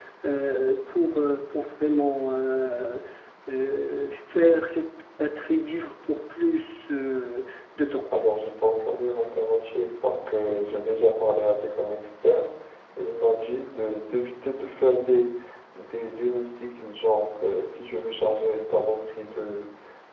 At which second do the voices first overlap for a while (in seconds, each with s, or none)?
none